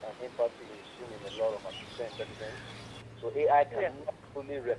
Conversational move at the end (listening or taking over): listening